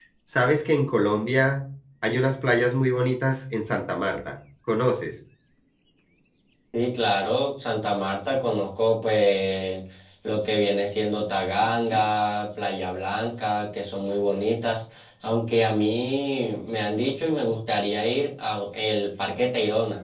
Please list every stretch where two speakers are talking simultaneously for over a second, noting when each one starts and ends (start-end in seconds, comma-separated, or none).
none